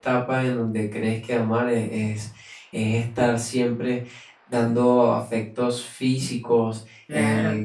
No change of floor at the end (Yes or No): Yes